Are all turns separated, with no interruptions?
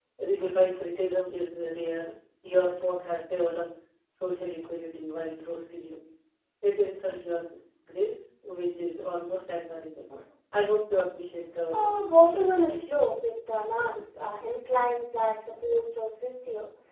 No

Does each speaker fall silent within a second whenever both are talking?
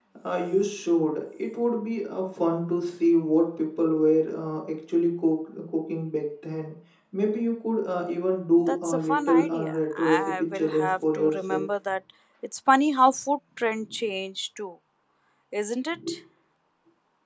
No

